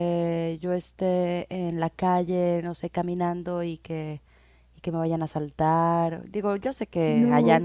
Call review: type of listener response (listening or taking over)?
listening